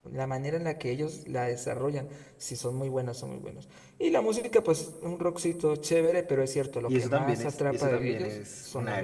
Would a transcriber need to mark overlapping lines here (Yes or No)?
Yes